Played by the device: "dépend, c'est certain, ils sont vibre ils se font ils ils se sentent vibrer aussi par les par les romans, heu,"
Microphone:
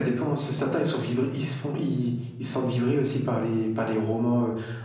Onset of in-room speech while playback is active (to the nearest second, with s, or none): none